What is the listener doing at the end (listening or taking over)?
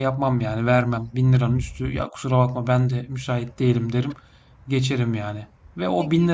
listening